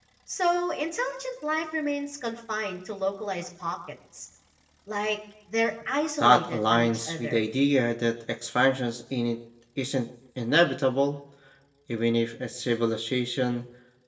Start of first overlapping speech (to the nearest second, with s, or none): 6 s